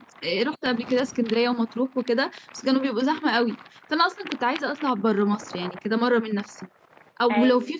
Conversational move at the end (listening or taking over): listening